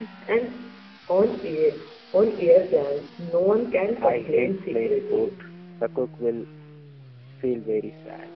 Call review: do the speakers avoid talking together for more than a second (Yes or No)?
No